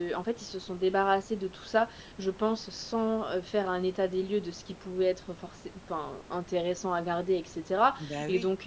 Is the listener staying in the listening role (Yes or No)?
Yes